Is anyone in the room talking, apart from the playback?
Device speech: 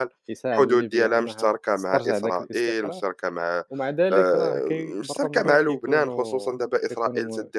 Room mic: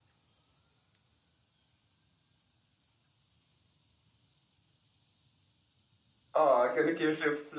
Yes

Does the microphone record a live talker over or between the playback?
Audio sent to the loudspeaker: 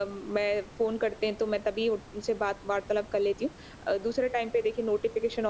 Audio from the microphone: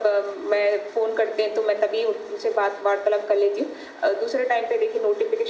No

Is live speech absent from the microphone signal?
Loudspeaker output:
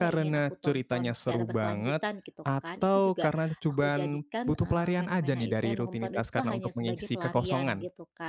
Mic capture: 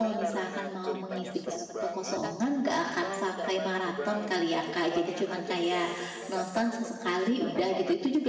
No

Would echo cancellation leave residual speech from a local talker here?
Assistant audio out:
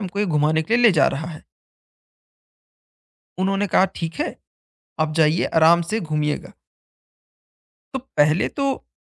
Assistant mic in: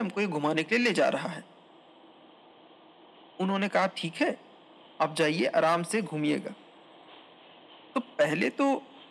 No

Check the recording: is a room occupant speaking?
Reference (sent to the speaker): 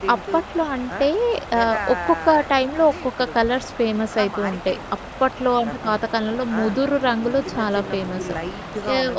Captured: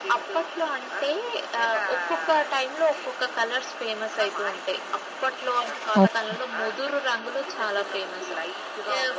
Yes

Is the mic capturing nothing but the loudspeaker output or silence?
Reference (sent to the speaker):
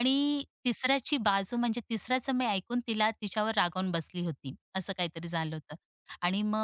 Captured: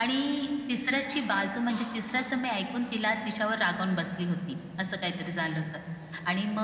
Yes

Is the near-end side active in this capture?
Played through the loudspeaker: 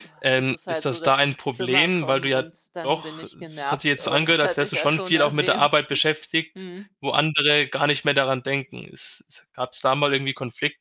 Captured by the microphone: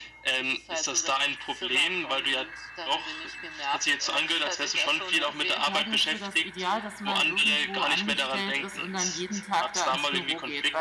Yes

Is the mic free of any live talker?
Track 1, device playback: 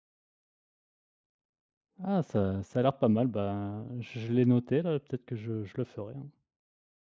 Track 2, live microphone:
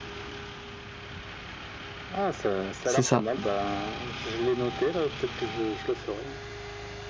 No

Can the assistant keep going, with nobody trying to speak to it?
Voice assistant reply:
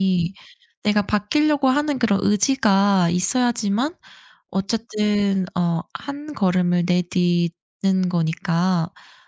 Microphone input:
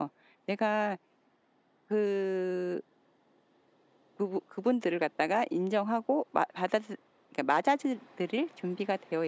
No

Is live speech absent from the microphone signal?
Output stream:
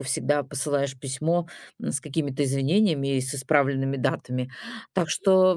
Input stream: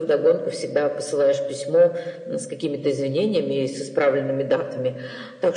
Yes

